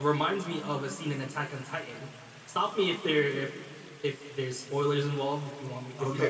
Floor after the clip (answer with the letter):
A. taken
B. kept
A